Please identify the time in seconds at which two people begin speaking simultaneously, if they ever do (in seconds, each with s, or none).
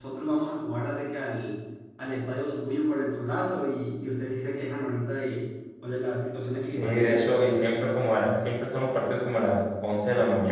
6.7 s